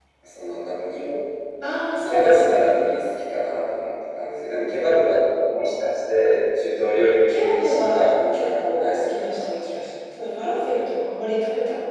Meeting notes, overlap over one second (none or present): present